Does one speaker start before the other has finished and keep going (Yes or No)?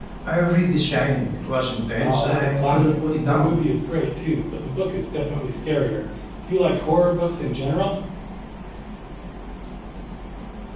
Yes